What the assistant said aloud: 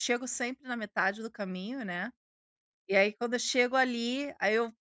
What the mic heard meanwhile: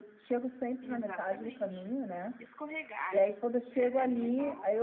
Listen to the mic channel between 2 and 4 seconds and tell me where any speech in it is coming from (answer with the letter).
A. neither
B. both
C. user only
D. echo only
B